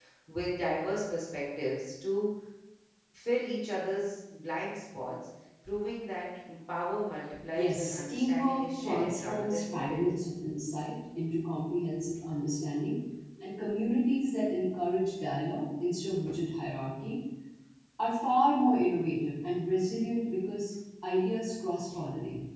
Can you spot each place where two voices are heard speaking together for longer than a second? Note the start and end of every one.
7.5-10.1

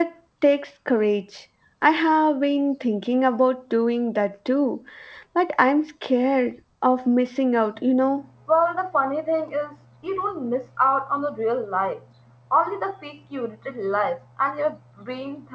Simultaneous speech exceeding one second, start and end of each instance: none

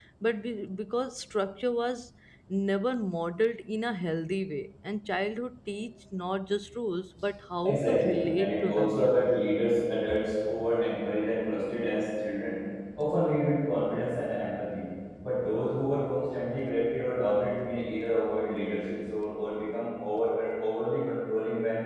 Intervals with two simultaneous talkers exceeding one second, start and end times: 7.6-9.2

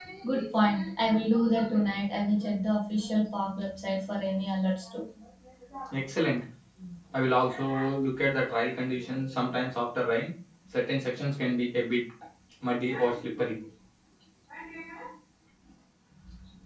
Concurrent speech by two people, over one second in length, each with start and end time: none

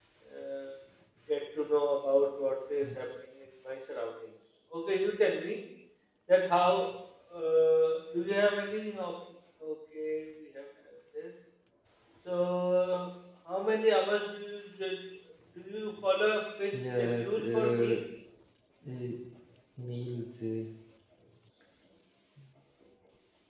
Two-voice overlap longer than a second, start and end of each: 16.7-18.0

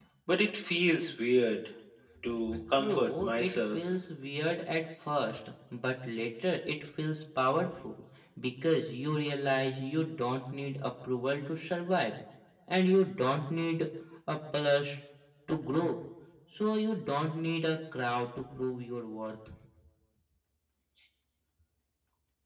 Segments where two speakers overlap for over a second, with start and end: 2.2-3.8

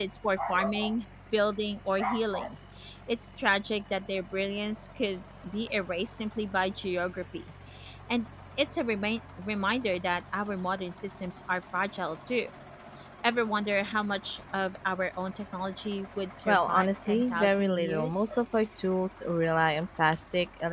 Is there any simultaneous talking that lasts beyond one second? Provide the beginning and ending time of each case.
16.5-18.3

